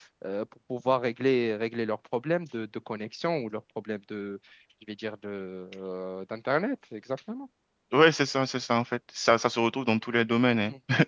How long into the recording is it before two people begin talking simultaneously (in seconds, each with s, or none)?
none